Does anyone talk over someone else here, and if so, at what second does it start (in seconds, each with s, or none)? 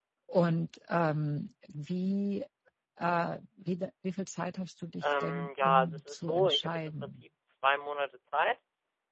5.0 s